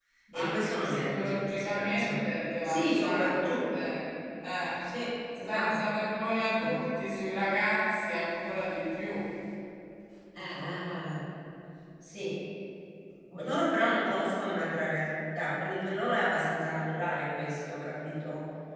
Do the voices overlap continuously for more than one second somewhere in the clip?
Yes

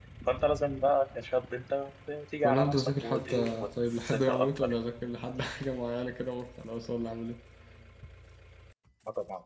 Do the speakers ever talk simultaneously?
Yes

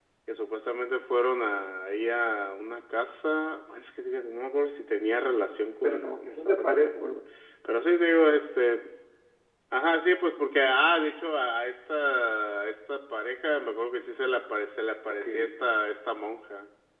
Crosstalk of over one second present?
Yes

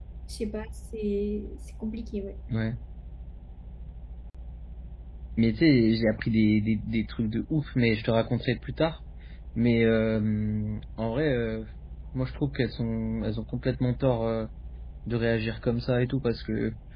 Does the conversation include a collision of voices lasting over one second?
No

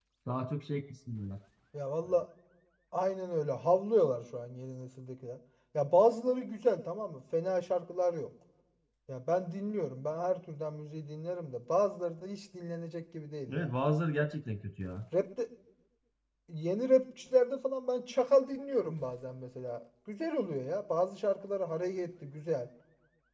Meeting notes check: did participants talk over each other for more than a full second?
No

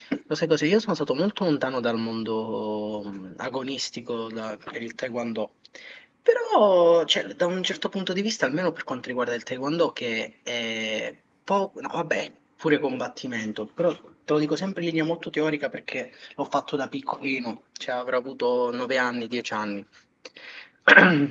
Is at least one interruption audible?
No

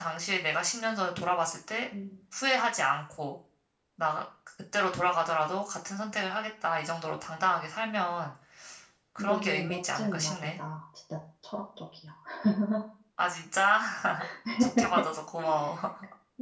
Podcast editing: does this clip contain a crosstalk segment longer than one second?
Yes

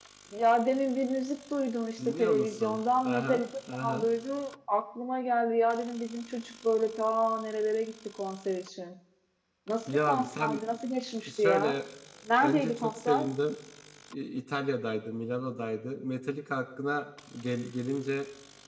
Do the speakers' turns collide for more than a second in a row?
Yes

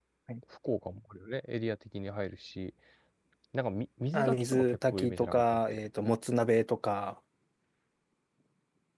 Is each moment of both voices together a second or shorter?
No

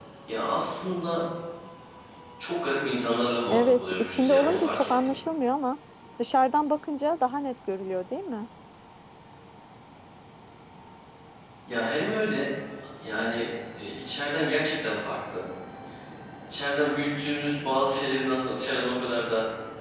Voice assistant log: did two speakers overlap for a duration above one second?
Yes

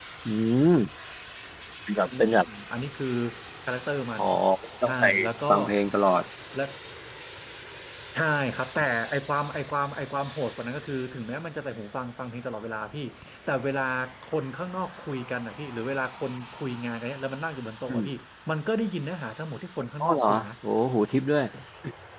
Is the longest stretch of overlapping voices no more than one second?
Yes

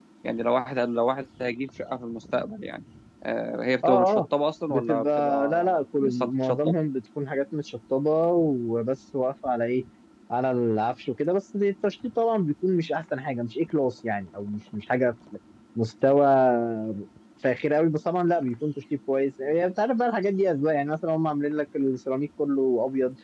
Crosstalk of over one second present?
Yes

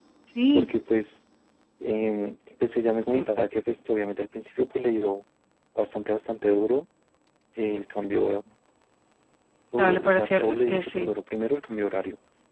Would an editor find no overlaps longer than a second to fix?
No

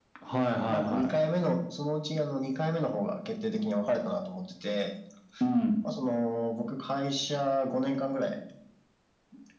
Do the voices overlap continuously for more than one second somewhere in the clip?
No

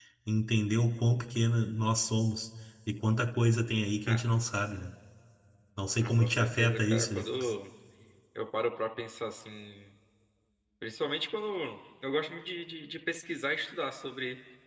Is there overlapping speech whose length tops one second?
Yes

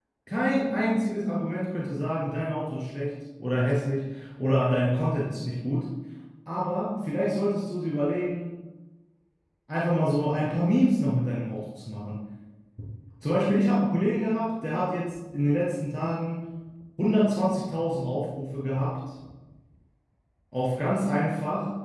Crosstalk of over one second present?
No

